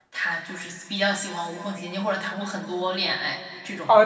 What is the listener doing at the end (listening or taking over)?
taking over